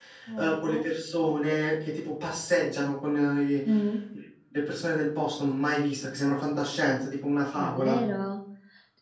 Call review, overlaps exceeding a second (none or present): none